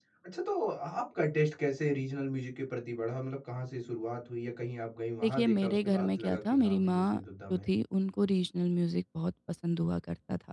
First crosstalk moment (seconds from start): 5.2 s

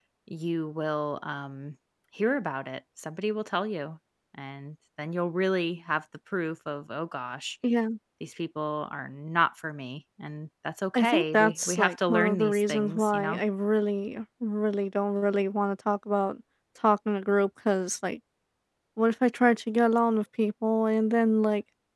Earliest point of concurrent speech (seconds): 10.9 s

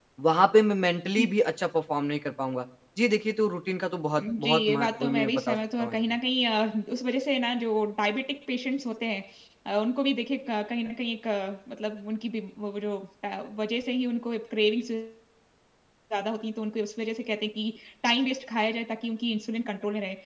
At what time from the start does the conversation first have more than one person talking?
4.1 s

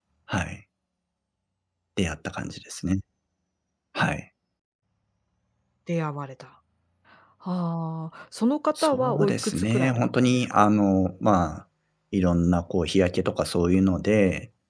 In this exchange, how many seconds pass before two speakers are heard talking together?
8.8 s

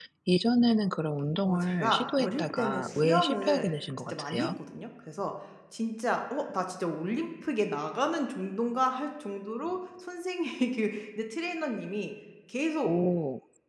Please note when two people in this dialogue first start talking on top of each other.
1.4 s

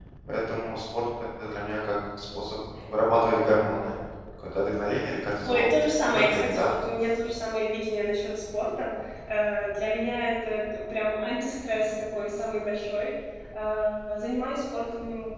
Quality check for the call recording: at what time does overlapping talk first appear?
5.4 s

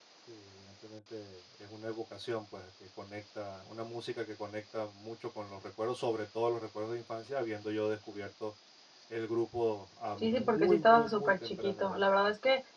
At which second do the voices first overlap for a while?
10.2 s

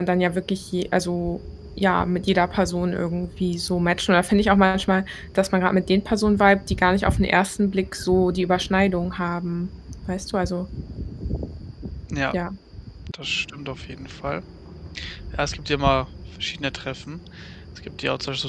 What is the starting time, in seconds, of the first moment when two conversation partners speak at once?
none

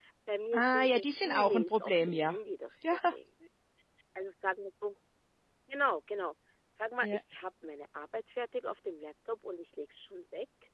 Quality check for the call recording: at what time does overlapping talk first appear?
0.5 s

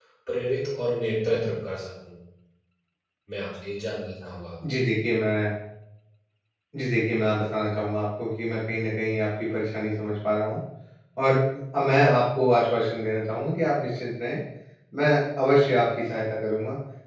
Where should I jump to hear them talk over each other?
none

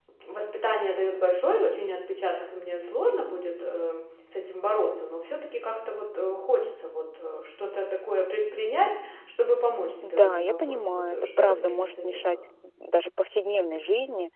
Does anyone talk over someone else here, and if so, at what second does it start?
10.0 s

